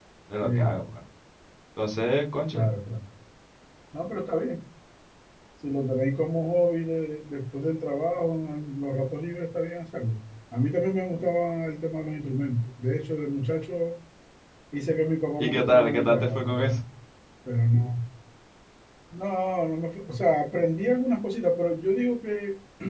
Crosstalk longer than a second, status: present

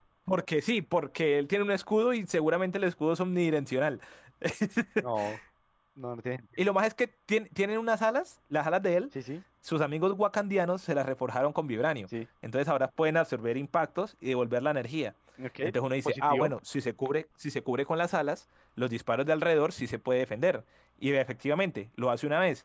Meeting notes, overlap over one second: none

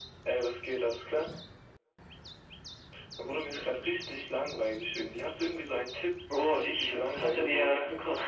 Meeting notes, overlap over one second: present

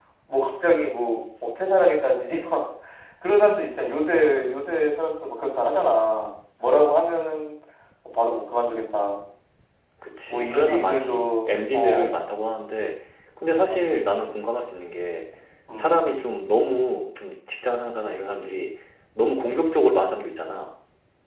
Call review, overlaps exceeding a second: present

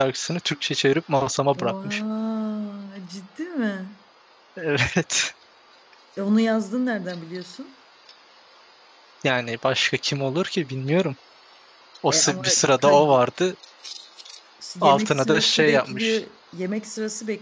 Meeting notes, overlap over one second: present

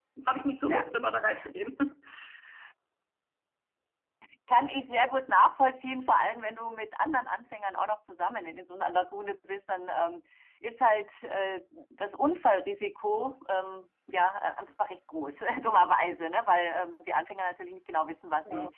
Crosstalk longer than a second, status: none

